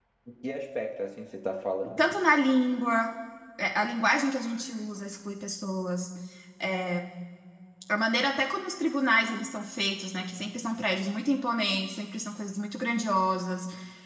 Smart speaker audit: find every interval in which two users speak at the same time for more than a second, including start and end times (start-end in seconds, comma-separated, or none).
none